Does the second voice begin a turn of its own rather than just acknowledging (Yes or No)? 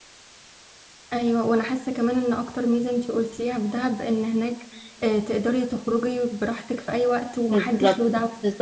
Yes